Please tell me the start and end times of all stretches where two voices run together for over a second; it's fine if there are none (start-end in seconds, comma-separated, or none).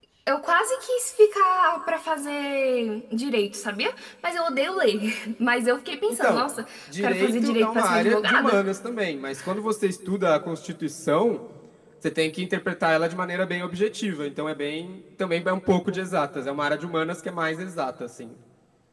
7.0-8.6